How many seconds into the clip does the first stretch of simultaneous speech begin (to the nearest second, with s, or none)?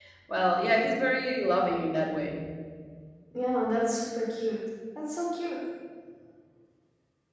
none